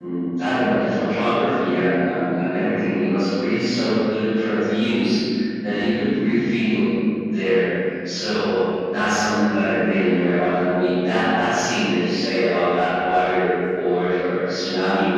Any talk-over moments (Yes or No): No